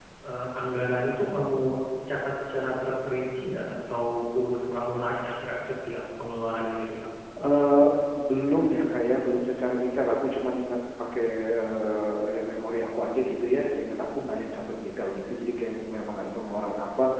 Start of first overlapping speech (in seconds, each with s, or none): none